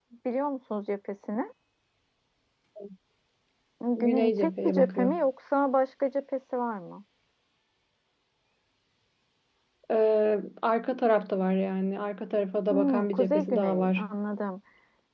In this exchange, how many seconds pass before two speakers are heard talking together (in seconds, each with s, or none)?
4.0 s